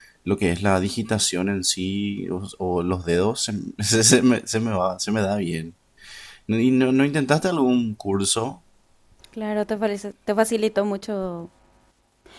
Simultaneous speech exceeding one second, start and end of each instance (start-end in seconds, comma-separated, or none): none